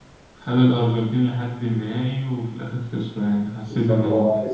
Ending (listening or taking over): taking over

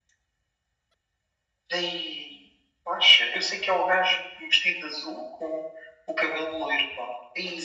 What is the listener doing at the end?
taking over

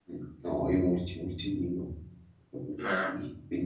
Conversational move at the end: listening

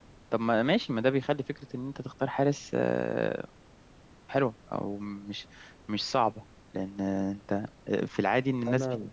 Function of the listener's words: listening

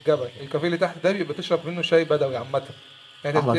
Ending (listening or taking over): listening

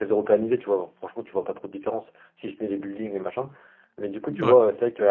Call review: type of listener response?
listening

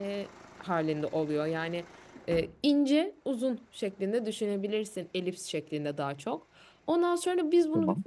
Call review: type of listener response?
listening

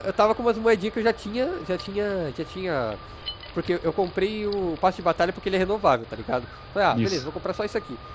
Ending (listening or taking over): listening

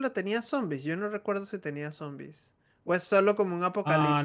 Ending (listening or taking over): taking over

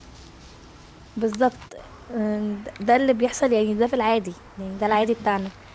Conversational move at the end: listening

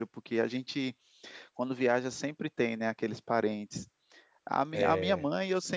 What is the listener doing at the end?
listening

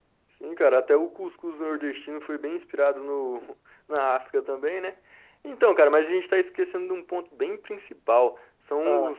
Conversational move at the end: listening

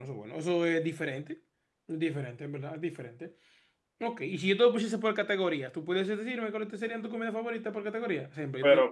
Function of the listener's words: listening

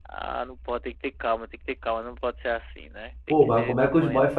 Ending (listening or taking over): taking over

